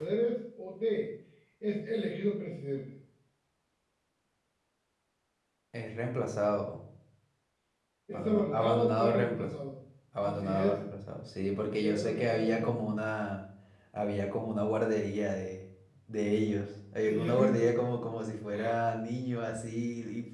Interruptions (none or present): present